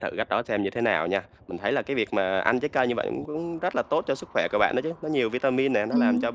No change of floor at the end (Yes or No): Yes